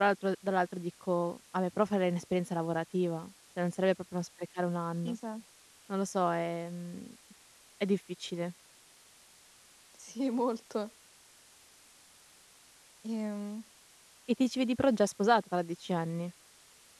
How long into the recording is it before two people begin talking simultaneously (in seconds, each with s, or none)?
none